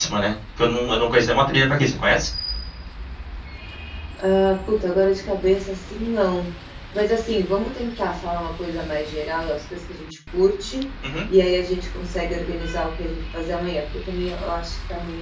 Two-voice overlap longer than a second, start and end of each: none

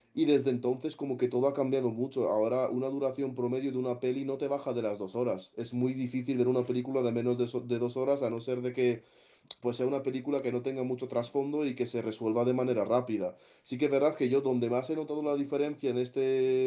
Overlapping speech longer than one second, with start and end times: none

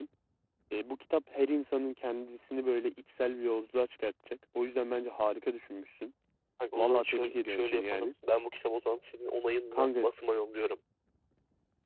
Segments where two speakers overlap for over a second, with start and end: 6.8-8.1

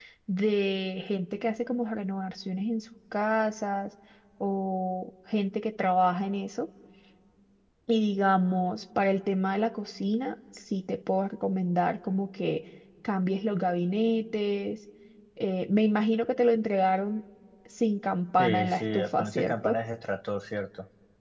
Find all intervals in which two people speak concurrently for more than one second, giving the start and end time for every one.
18.4-19.8

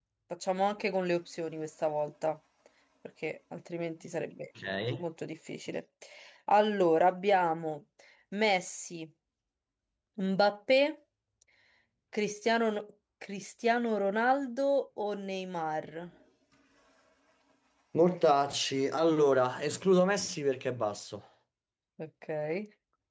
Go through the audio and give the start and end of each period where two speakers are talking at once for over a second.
none

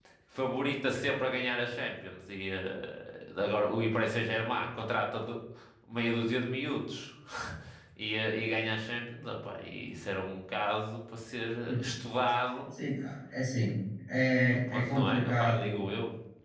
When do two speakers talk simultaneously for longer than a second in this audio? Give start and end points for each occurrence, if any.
14.7-15.9

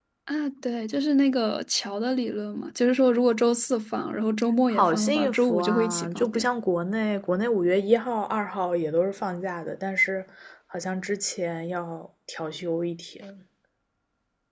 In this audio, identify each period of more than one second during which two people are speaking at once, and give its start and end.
4.7-6.5

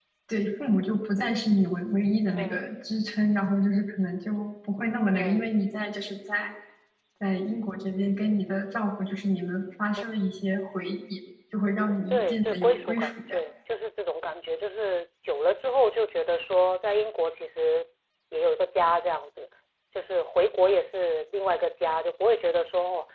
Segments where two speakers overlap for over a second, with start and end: 12.1-13.4

